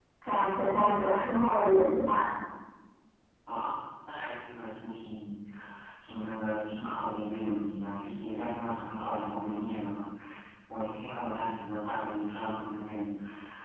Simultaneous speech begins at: none

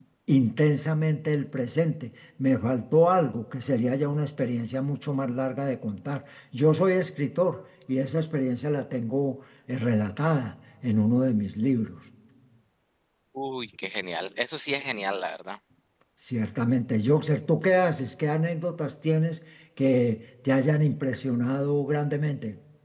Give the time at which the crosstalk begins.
none

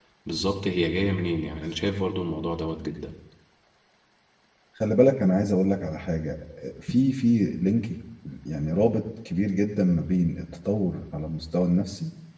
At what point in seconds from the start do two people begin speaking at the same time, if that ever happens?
none

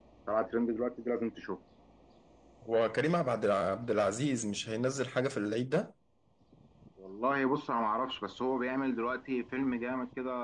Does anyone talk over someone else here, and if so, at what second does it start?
none

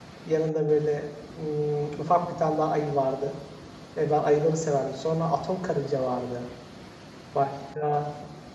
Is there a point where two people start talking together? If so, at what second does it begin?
none

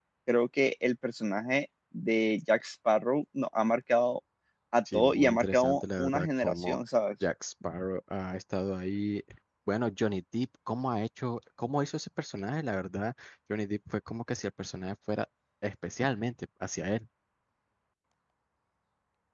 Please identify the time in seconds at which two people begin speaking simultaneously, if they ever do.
4.9 s

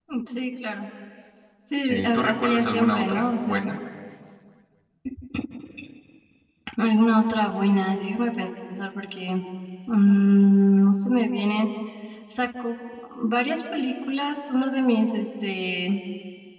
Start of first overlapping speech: 1.8 s

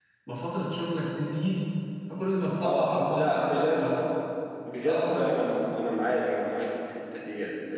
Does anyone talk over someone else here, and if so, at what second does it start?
2.6 s

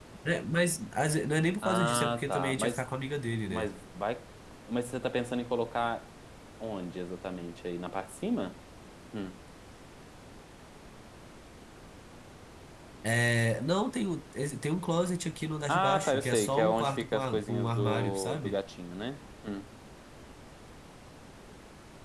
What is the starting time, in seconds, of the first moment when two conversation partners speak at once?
1.6 s

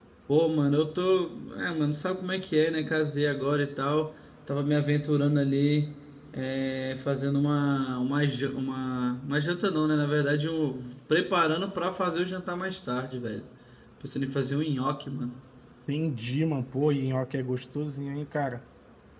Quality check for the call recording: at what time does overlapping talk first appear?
none

